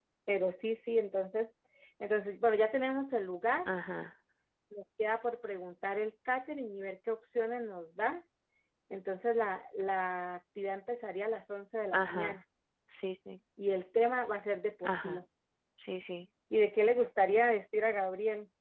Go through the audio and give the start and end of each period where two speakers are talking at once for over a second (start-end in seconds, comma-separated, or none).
none